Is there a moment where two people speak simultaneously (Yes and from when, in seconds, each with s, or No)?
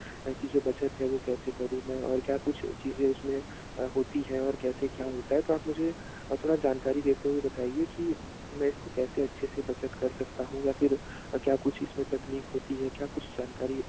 No